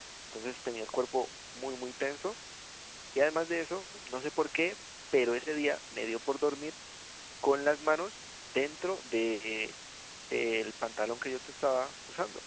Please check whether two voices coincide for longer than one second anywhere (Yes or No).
No